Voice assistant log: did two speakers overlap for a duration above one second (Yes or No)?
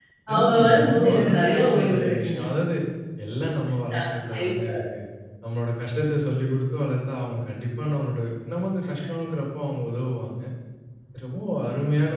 Yes